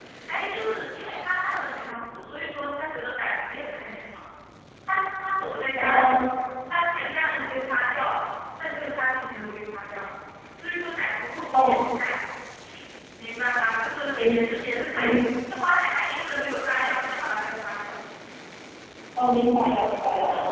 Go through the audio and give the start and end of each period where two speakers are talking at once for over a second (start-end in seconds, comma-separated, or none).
none